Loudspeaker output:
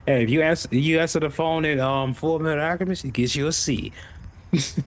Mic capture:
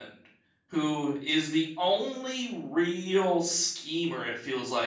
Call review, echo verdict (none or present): none